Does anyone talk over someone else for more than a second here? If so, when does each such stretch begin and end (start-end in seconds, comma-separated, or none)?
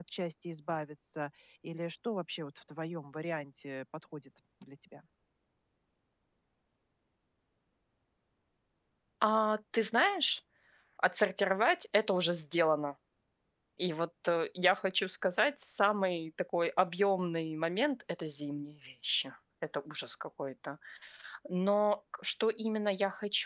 none